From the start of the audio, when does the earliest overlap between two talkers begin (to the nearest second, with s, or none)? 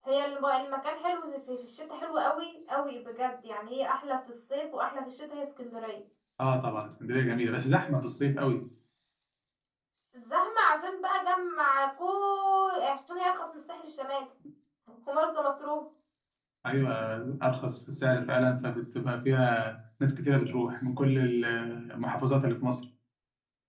none